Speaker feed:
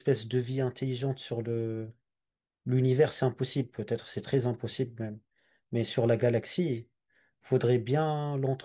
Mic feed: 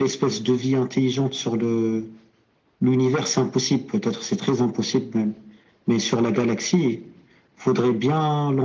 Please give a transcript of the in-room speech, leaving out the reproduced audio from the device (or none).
none